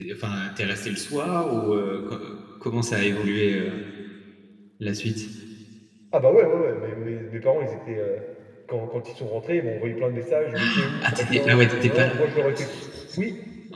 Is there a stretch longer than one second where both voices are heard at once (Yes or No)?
Yes